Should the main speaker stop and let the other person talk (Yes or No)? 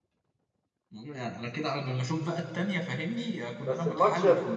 Yes